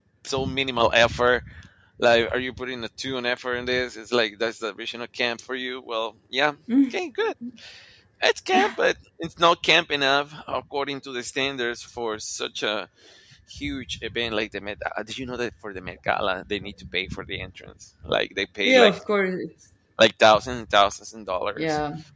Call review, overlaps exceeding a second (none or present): none